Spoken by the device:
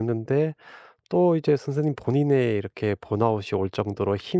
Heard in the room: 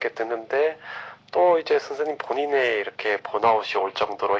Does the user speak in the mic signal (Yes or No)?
No